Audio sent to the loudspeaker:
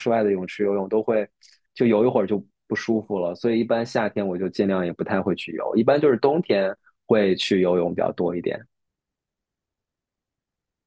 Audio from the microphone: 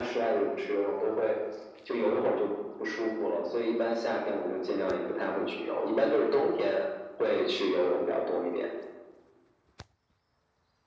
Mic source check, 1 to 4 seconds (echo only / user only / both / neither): echo only